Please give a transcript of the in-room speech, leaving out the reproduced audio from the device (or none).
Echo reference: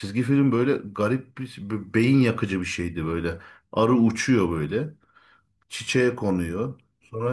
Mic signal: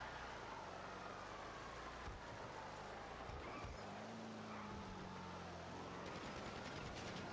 none